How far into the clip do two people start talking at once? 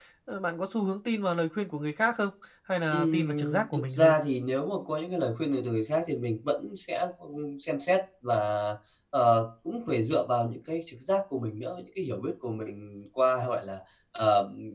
3 s

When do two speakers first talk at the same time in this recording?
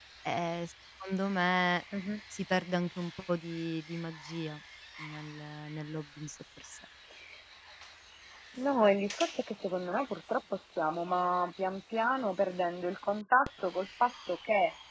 none

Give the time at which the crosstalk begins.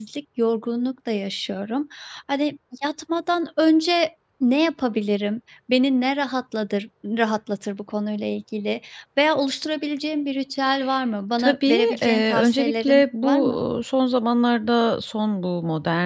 11 s

